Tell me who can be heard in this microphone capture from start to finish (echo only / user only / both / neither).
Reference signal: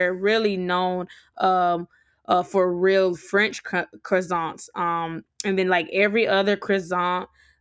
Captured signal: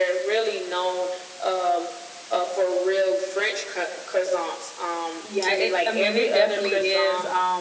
both